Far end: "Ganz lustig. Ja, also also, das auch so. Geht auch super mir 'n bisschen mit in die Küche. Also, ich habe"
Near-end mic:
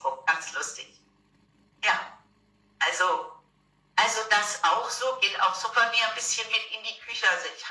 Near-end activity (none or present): none